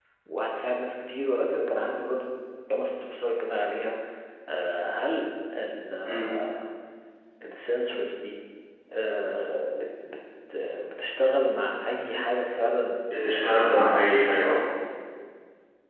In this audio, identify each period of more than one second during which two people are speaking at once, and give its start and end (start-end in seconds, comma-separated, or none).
13.3-14.6